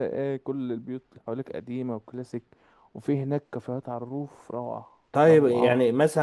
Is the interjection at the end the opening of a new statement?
Yes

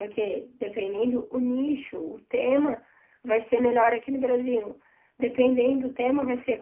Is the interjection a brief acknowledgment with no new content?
Yes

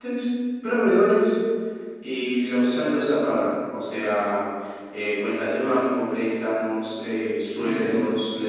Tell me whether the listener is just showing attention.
No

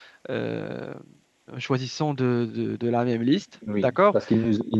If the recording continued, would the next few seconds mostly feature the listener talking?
Yes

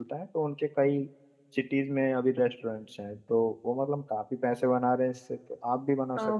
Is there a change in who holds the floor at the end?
Yes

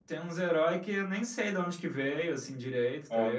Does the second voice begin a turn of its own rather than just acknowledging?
No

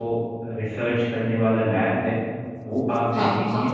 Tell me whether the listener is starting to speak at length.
No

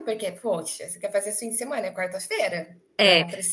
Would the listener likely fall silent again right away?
No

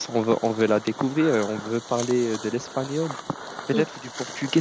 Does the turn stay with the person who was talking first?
Yes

